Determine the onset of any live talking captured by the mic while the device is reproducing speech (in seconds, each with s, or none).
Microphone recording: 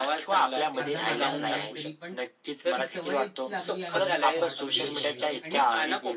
0.8 s